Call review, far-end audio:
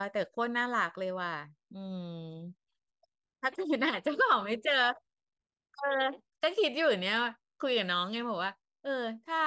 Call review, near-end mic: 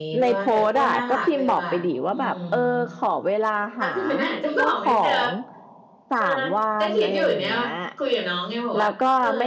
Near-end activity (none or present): present